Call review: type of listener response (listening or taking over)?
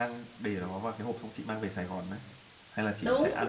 taking over